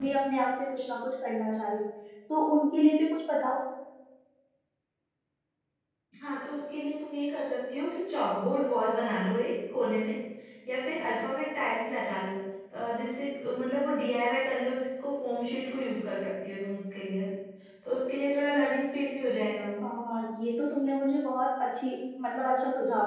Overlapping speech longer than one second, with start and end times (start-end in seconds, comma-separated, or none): none